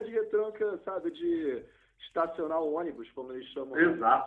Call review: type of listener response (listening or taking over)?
taking over